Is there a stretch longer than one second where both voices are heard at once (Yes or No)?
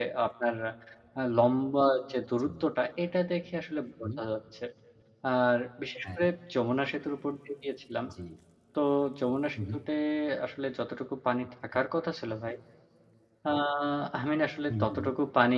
No